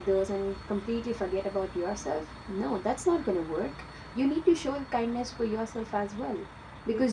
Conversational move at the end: listening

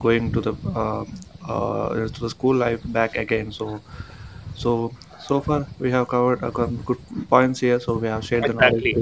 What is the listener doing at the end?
taking over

